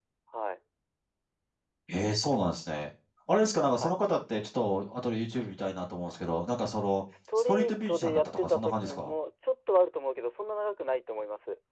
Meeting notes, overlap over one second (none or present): present